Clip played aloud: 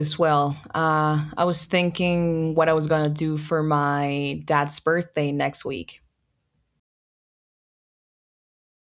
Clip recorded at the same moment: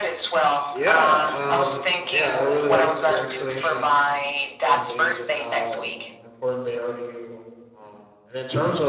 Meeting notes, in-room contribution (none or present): present